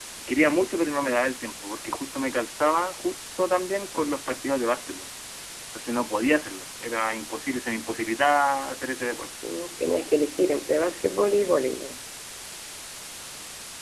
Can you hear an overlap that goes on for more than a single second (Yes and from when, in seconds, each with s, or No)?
No